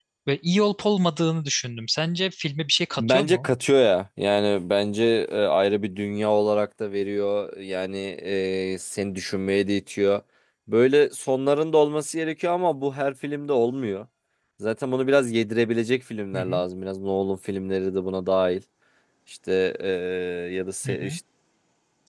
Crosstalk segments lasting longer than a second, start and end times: none

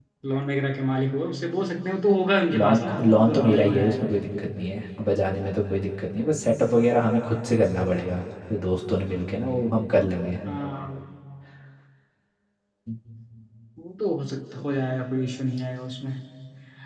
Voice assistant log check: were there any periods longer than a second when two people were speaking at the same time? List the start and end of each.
2.6-4.1

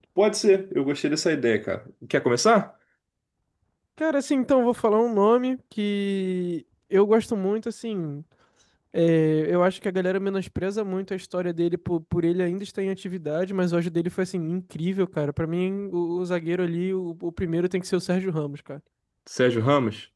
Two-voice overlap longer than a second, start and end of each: none

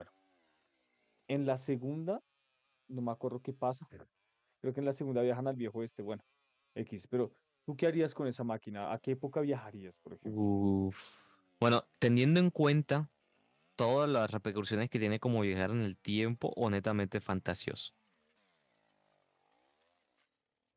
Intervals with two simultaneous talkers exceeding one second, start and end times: none

